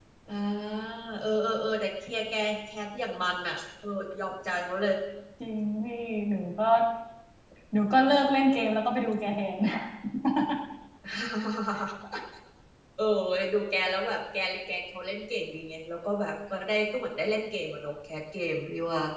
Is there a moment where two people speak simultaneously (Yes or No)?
No